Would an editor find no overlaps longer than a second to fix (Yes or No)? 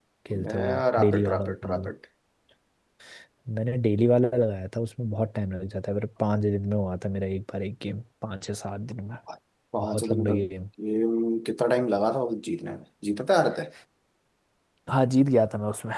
No